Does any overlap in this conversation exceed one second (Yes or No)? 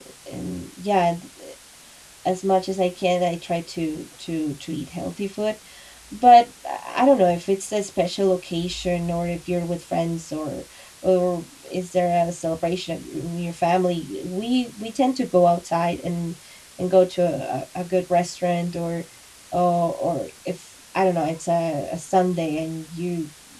No